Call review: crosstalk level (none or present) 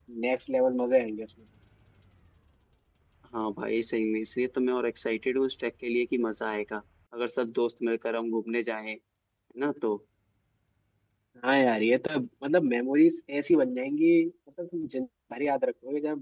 none